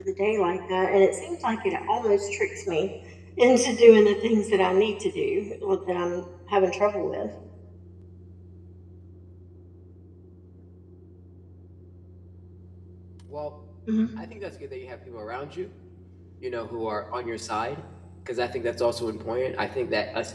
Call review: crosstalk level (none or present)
none